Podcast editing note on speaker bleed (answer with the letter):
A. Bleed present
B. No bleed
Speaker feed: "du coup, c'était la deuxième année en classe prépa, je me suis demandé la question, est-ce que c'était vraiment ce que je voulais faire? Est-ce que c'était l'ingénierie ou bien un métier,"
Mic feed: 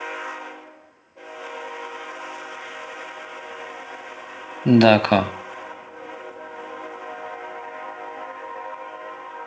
B